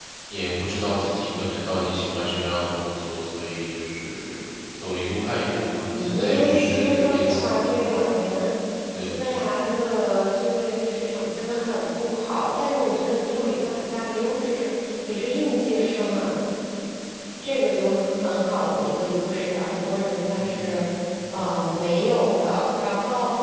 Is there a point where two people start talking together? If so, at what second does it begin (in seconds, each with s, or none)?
5.9 s